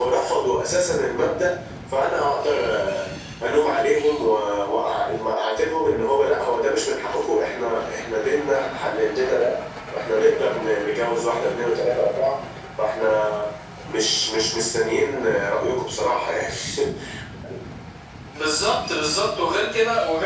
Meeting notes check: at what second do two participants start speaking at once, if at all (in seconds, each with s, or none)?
none